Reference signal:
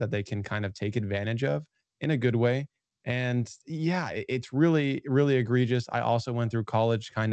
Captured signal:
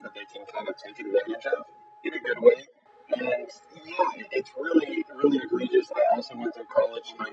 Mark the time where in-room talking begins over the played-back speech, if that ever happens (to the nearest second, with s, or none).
none